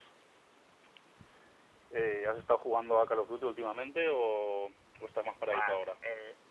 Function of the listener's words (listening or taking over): taking over